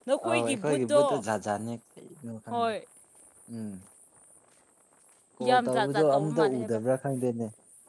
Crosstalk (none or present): present